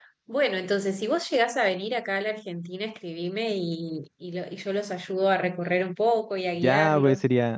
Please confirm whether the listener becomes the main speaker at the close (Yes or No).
Yes